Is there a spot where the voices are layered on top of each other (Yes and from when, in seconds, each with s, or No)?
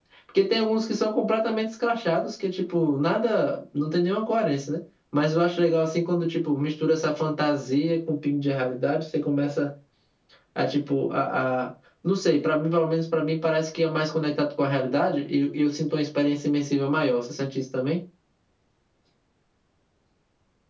No